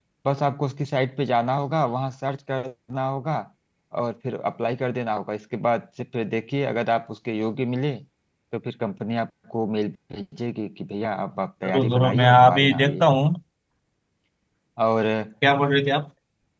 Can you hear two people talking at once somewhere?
Yes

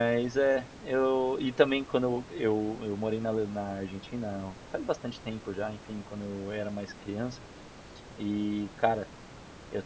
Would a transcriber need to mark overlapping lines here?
No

